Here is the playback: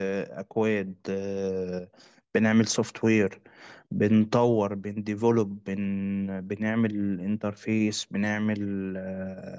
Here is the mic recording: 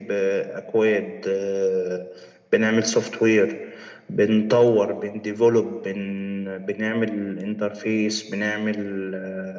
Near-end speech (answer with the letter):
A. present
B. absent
B